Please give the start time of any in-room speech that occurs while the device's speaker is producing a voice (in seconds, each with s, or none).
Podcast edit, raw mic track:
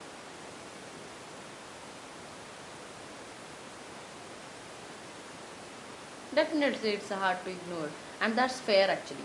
6.3 s